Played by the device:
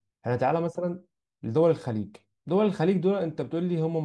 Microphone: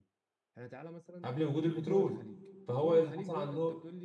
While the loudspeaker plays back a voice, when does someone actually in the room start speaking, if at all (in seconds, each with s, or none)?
1.2 s